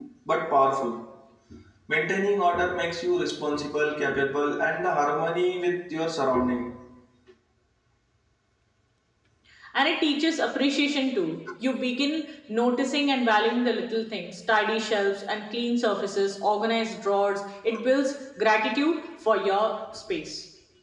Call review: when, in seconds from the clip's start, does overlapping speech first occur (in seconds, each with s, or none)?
none